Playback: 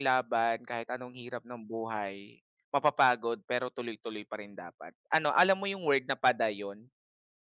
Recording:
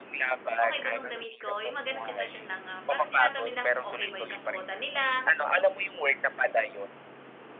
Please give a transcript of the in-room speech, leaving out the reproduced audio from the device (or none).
okay ba tong damit ko? Yung mga ganong sitwasyon lang, ah, parang tinatanong nila kung okay ba yung kasuotan nila,